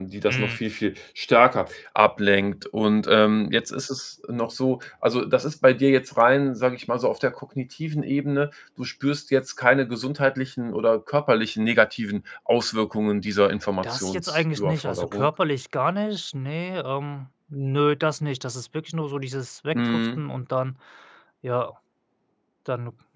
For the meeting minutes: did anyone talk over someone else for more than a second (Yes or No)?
Yes